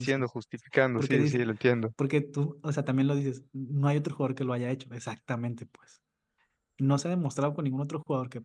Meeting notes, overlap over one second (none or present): none